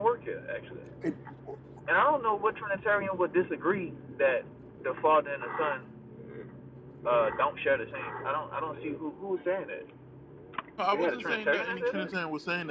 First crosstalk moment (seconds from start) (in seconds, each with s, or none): 10.9 s